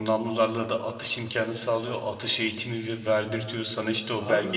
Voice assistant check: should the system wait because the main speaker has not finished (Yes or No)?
No